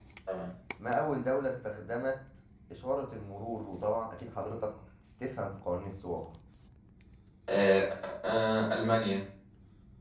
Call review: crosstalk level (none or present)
none